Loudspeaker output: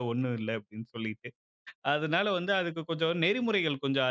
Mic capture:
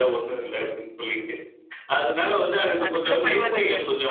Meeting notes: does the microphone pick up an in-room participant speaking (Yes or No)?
Yes